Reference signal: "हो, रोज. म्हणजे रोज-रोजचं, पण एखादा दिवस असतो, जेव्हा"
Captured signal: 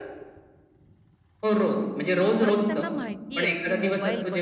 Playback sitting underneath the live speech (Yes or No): No